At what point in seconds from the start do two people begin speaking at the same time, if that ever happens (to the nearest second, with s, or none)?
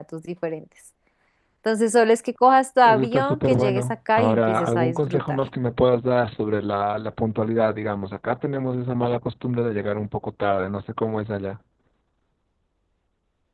3 s